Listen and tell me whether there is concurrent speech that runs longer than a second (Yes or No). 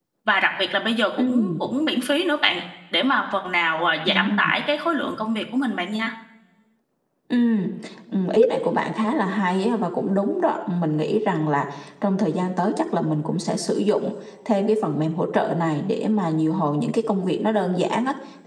No